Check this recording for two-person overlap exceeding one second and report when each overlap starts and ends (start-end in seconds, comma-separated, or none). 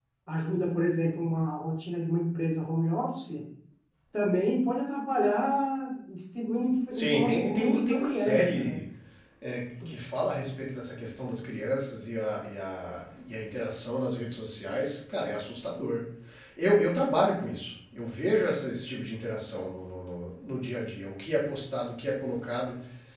6.9-8.8